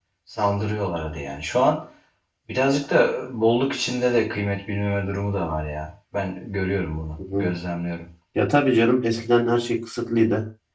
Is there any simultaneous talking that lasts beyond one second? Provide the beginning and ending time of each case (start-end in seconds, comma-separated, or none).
none